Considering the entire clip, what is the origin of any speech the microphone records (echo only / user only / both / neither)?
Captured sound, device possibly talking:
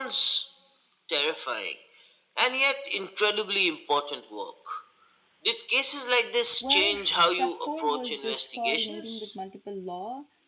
both